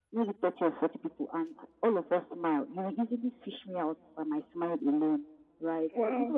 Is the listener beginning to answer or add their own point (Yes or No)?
No